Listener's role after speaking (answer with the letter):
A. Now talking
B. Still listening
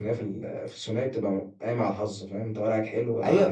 A